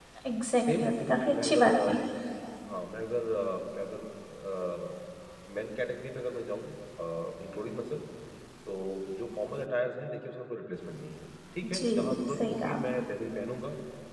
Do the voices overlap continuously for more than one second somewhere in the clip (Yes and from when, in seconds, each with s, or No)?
Yes, from 0.6 s